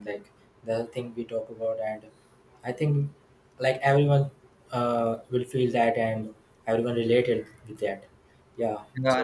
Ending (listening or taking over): taking over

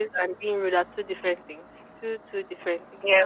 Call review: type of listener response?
listening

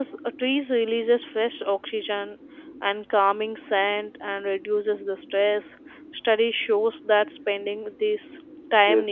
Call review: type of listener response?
listening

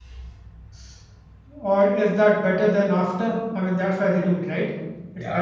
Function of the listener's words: taking over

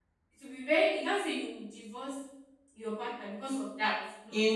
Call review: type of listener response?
taking over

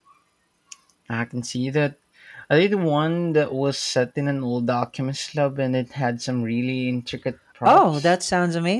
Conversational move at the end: taking over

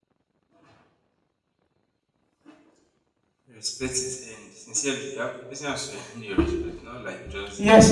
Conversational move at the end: taking over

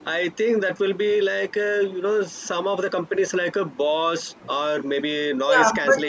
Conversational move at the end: taking over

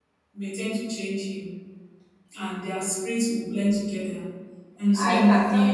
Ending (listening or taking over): taking over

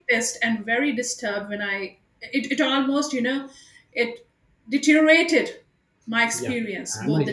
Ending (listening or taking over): taking over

